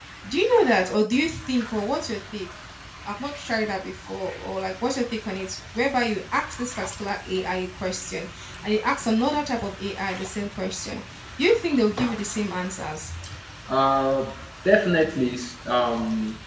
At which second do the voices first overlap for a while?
none

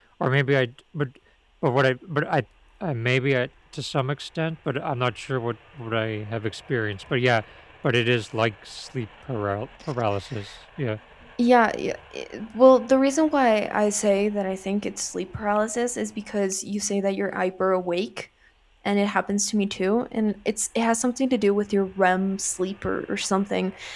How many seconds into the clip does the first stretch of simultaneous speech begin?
none

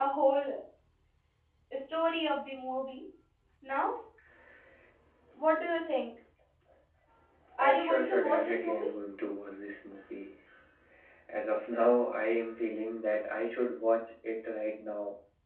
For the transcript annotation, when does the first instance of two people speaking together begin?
7.6 s

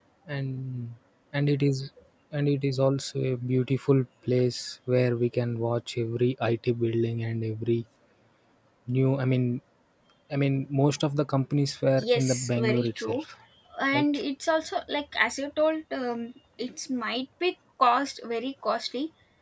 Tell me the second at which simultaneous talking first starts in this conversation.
12.0 s

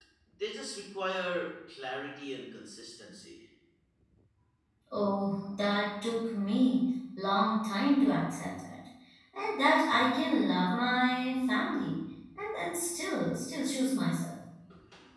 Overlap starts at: none

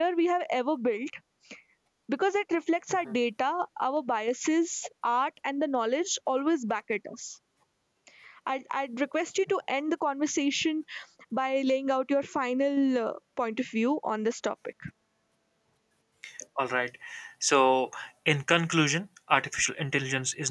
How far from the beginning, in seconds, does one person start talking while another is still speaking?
none

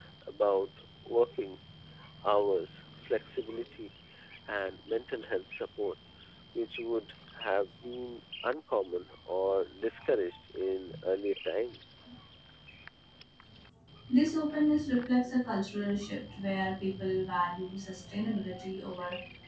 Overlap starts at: none

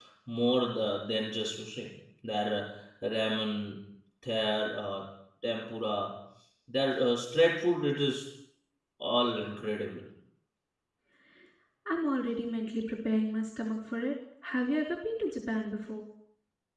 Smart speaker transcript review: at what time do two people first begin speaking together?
none

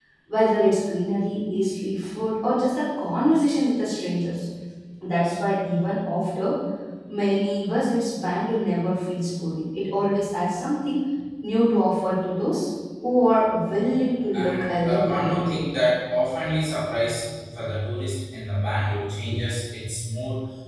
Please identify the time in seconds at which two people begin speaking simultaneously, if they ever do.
14.3 s

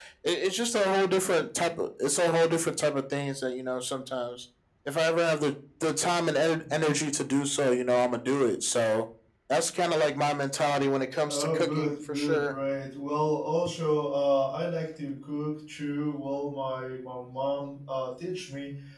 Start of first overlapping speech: 11.3 s

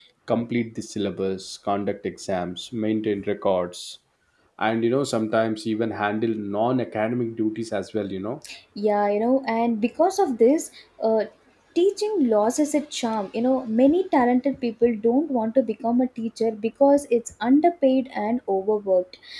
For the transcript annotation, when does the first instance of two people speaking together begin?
none

